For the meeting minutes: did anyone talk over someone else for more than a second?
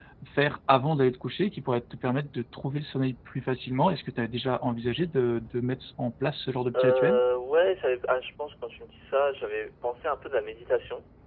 No

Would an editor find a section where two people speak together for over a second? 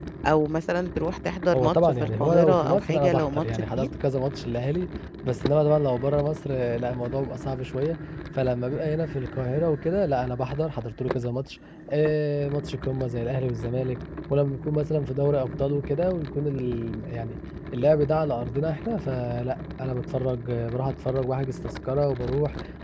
Yes, from 1.5 s

